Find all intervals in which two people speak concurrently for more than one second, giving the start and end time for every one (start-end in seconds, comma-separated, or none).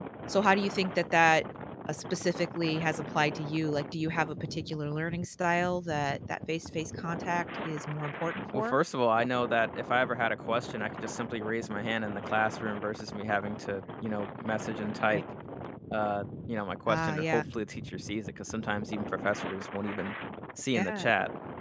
none